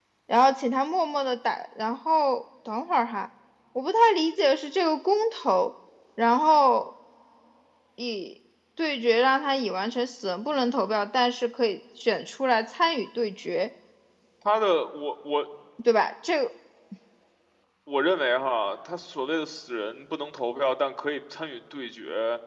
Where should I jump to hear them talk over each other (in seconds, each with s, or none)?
none